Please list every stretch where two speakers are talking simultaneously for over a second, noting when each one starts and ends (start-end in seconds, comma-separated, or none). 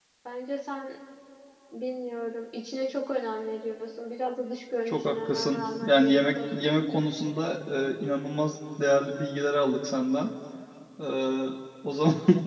4.9-6.7